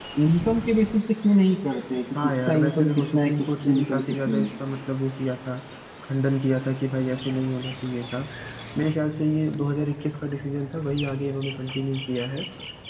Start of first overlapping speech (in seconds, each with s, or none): 2.1 s